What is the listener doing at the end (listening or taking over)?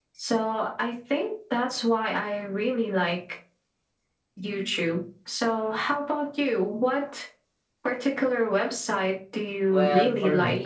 taking over